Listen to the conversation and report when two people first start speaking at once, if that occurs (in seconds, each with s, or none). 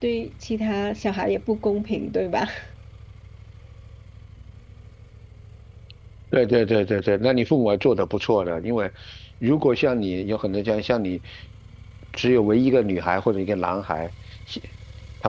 none